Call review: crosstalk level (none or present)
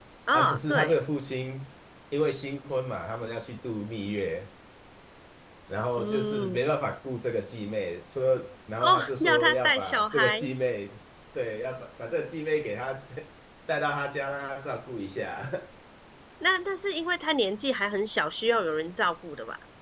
present